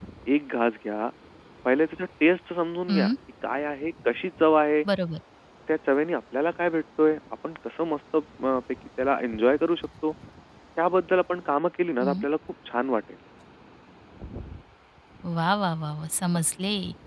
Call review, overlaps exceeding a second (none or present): none